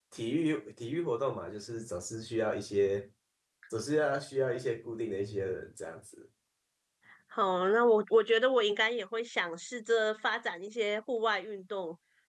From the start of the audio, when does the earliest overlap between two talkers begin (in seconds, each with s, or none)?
none